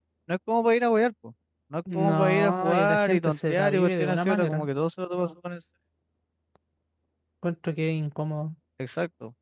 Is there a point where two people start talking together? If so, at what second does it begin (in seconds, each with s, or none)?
1.9 s